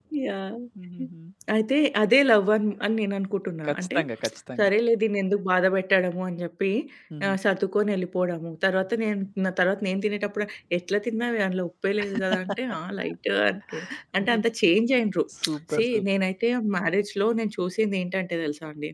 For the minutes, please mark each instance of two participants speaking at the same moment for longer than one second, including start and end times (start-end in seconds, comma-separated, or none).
none